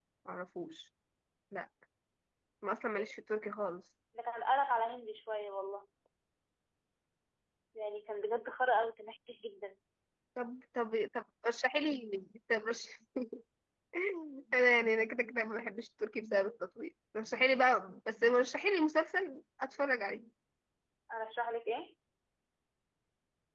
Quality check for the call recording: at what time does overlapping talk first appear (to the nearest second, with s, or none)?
none